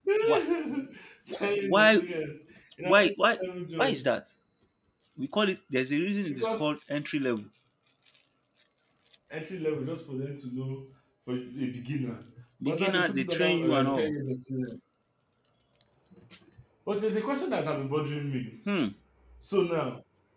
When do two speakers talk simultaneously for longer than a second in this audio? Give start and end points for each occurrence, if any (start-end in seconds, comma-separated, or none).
12.6-14.1